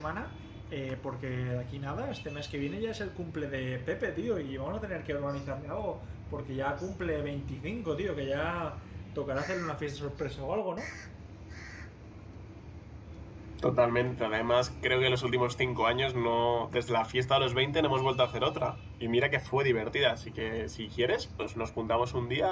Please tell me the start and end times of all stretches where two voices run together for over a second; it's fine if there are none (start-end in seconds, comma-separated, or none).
none